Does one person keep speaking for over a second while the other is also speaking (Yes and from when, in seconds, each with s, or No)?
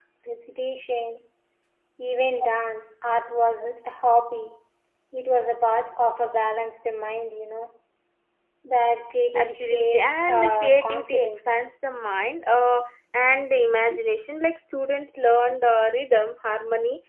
Yes, from 9.3 s